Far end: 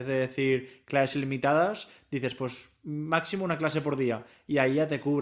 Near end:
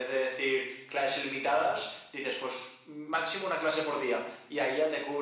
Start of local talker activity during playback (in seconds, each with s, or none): none